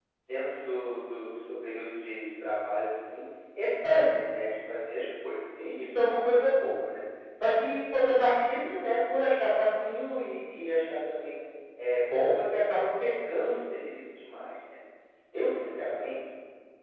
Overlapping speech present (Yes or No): No